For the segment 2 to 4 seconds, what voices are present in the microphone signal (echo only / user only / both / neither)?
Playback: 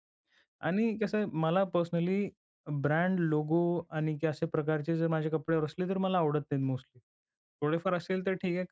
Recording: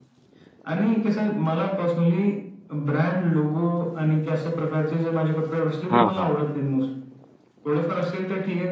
echo only